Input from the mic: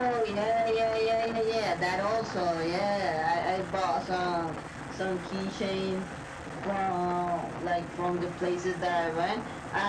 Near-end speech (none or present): none